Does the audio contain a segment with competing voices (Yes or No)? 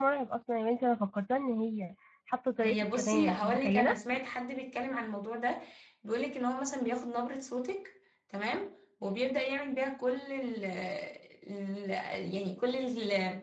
Yes